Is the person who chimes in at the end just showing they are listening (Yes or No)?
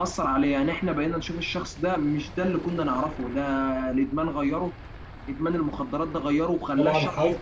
No